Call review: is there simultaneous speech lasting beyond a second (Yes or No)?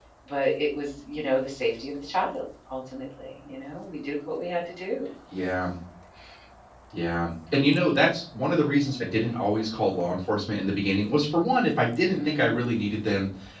No